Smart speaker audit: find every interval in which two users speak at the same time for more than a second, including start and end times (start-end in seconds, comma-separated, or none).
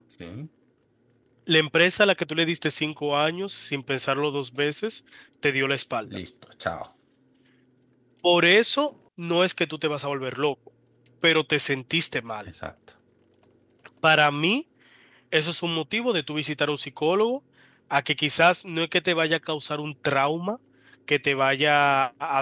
none